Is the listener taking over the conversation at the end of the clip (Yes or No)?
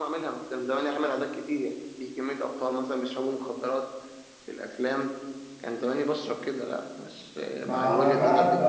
Yes